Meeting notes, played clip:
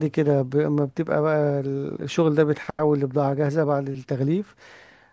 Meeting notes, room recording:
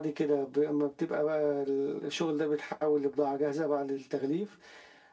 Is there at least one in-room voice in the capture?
No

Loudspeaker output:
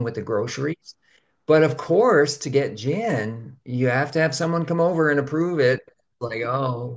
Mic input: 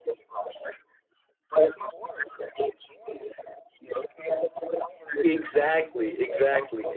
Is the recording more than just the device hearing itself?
Yes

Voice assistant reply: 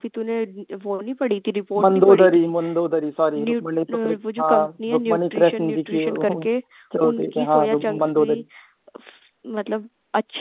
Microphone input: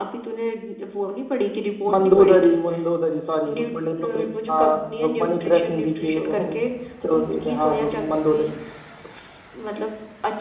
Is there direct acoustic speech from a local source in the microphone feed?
No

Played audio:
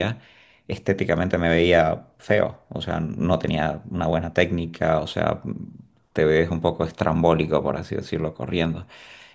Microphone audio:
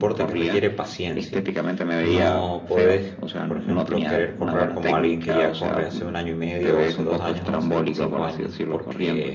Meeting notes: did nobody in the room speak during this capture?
No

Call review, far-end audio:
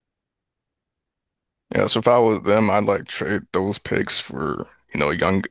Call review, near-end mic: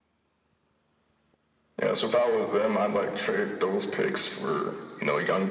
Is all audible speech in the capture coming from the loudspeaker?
Yes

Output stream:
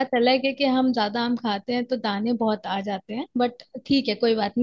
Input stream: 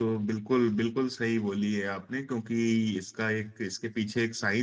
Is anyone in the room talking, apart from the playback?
Yes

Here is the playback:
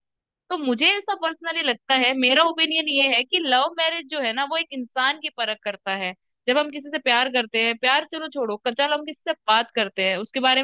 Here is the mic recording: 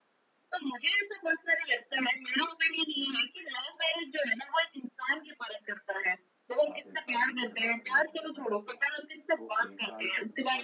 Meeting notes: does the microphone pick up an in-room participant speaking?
Yes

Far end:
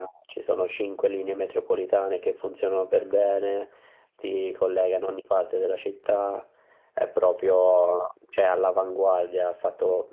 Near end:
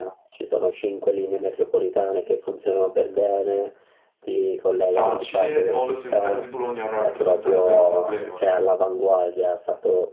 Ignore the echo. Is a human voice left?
Yes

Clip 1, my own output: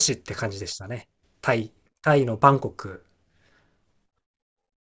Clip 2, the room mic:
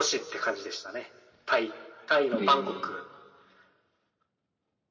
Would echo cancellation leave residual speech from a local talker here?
Yes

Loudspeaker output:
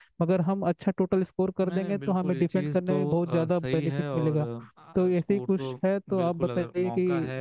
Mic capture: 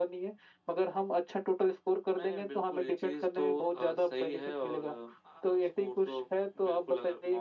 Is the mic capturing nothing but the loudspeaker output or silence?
Yes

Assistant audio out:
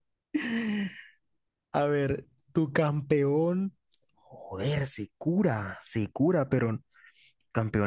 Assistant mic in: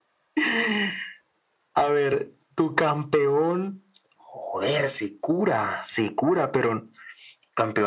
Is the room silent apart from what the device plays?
Yes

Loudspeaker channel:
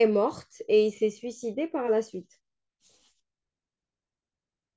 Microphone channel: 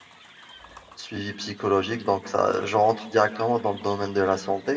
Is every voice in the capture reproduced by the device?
No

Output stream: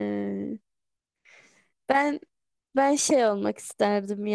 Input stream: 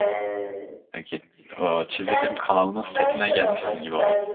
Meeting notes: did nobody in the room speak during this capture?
No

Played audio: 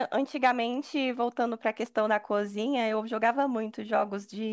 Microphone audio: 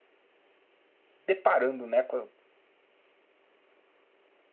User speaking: Yes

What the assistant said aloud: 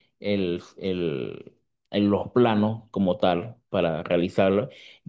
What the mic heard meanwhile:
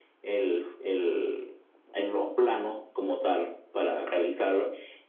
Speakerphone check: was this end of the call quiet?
Yes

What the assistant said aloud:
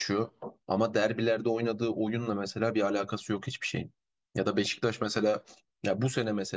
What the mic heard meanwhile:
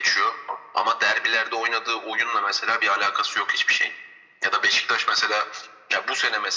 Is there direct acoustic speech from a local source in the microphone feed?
No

